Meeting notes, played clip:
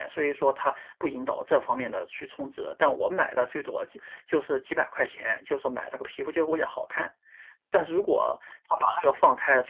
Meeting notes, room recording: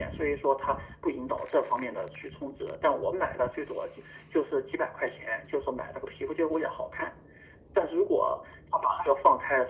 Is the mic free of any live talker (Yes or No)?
Yes